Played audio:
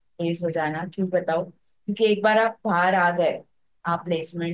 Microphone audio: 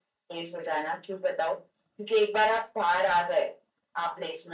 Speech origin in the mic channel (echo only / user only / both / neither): echo only